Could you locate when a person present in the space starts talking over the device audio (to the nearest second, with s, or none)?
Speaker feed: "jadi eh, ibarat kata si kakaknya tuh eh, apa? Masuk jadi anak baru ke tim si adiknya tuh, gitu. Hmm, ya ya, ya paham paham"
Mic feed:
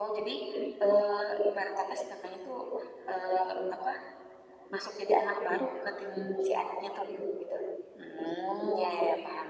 none